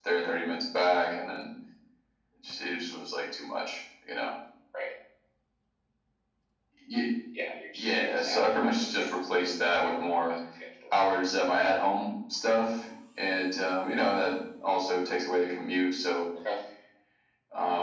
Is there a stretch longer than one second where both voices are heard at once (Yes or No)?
Yes